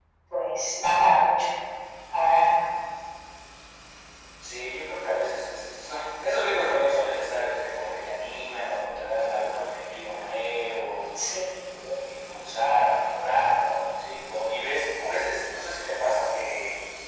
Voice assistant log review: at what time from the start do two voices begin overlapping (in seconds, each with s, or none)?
none